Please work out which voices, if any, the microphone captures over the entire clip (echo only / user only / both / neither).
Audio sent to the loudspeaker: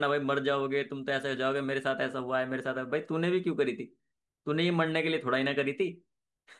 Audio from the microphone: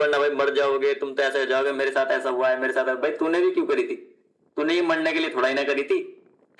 echo only